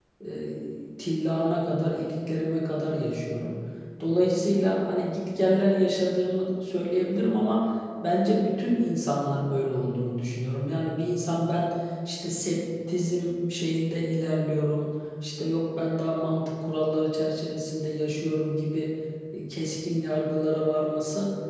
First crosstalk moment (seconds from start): none

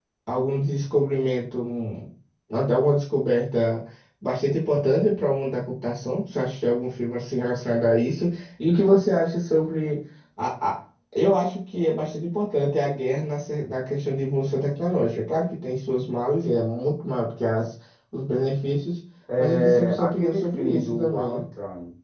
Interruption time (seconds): 19.3 s

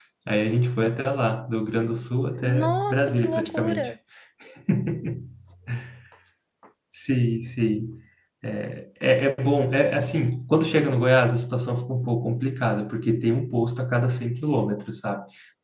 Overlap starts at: 2.4 s

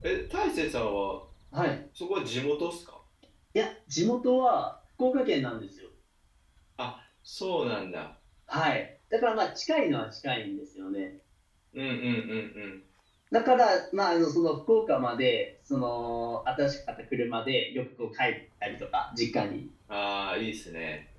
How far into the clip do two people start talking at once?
none

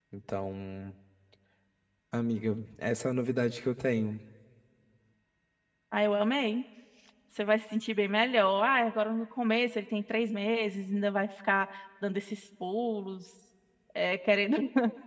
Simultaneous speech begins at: none

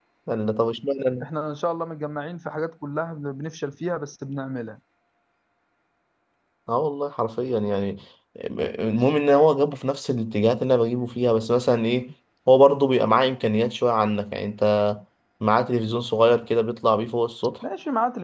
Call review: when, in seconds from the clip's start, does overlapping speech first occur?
none

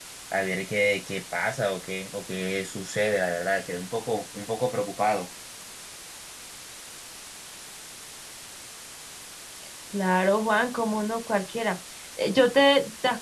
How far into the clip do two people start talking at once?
none

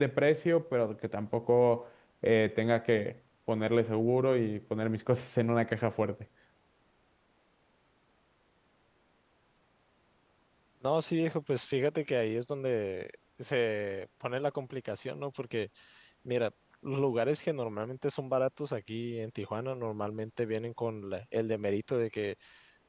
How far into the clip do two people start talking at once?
none

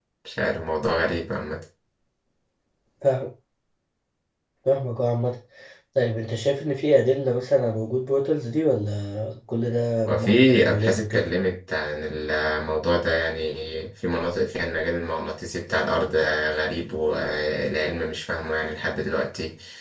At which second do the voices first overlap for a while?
10.1 s

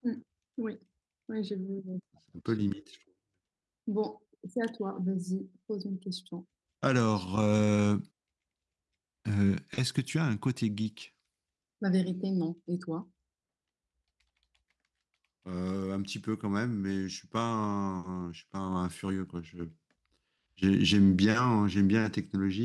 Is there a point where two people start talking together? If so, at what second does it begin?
none

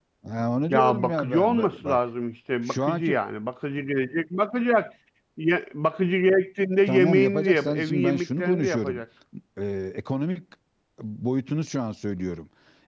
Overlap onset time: 0.7 s

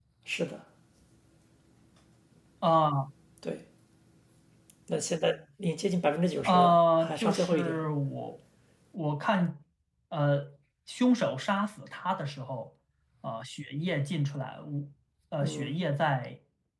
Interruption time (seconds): 6.5 s

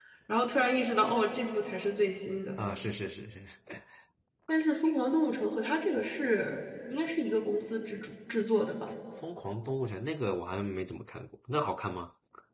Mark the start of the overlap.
none

